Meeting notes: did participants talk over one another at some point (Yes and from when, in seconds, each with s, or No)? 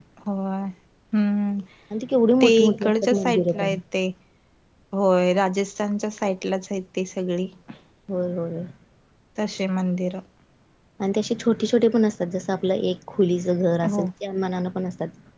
Yes, from 2.4 s